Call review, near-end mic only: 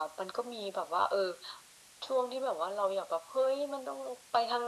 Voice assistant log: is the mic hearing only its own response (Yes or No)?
Yes